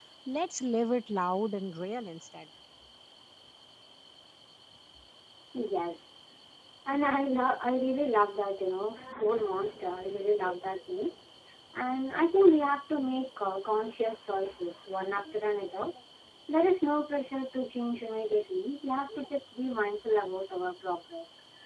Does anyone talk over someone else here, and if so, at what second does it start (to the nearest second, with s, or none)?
none